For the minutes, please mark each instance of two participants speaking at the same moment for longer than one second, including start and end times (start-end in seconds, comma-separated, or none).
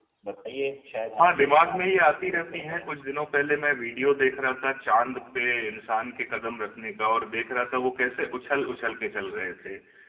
1.2-2.9